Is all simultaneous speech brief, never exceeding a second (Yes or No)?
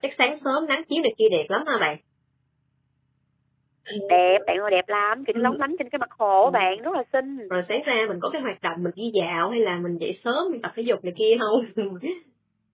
Yes